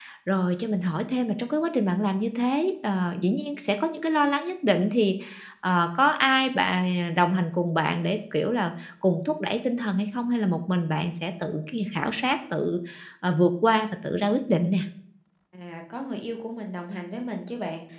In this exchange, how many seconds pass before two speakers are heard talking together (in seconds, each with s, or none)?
none